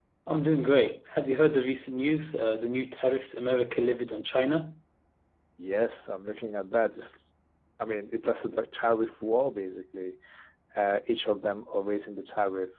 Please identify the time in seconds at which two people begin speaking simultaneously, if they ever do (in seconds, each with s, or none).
none